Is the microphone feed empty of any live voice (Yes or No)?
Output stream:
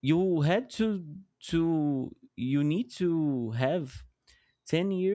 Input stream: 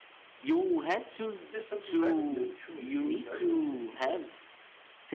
No